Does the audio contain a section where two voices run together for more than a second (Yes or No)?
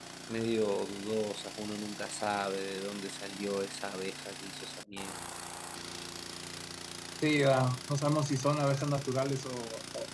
No